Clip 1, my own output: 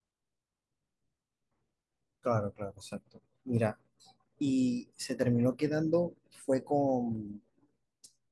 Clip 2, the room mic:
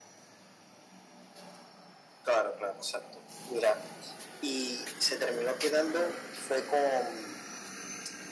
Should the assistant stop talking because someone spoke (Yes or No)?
No